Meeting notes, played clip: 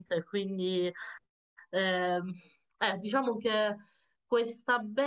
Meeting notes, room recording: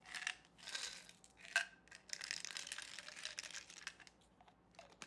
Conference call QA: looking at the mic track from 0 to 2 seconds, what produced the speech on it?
neither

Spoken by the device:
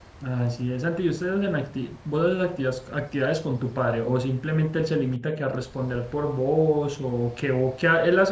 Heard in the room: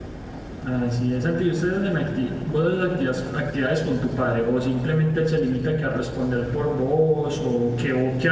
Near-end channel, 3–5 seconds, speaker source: echo only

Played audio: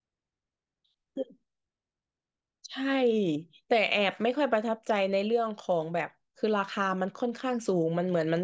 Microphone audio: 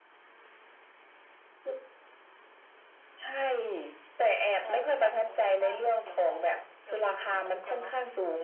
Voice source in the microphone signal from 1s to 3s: neither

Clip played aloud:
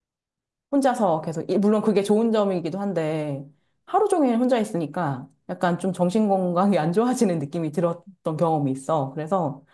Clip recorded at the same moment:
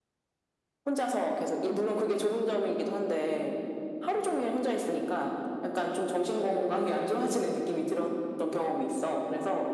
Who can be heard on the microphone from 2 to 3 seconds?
echo only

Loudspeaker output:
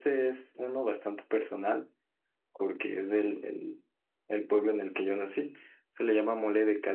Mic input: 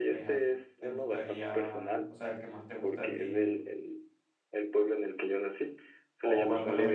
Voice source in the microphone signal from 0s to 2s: both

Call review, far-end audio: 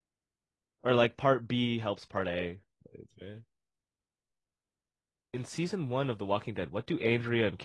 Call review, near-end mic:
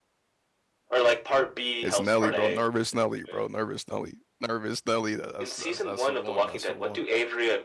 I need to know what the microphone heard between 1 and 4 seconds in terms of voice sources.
both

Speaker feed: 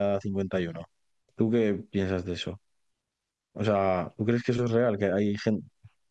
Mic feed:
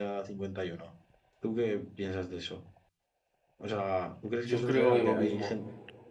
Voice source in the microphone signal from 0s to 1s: echo only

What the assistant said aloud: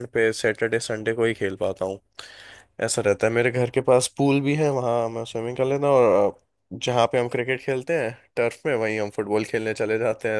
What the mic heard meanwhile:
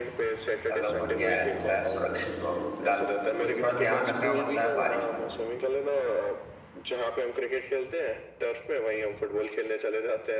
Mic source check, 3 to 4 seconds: both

